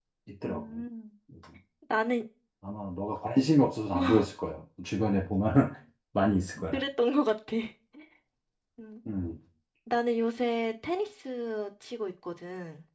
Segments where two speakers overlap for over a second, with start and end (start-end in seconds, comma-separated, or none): none